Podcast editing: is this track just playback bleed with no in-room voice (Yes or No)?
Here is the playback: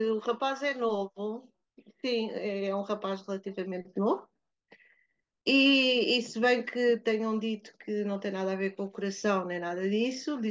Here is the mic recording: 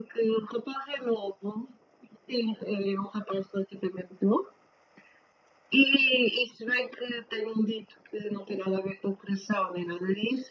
Yes